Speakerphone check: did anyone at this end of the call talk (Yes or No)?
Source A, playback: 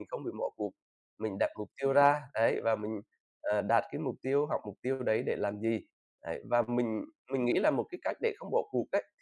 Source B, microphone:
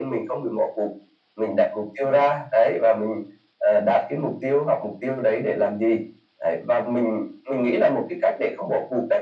No